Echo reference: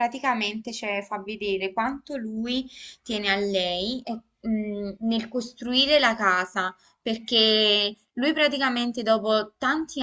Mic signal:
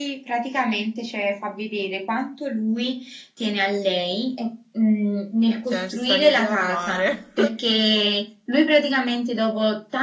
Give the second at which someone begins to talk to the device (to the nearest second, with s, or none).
6 s